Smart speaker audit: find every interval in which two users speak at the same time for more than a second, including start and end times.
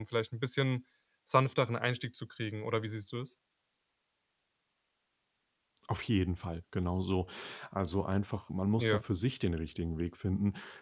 none

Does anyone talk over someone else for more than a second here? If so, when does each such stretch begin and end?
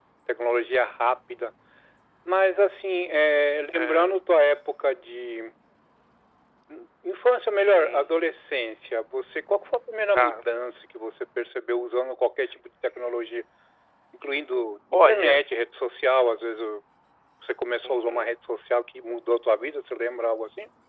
none

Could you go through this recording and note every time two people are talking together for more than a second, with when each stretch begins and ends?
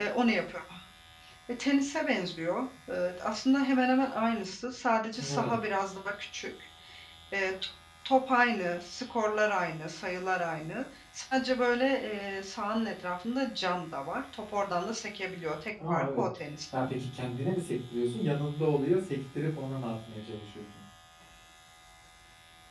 none

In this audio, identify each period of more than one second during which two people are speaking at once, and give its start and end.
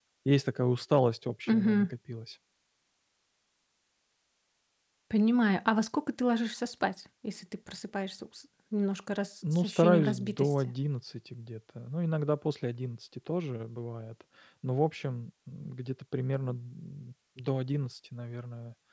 9.5-10.7

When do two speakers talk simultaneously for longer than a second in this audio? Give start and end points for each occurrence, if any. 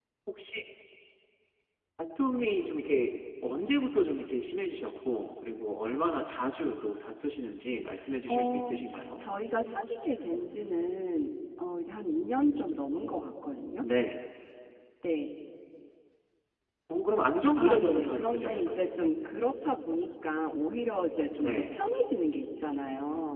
17.6-18.9

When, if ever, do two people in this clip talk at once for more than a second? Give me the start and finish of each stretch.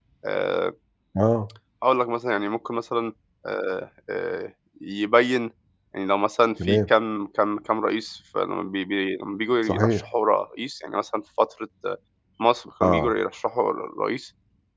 none

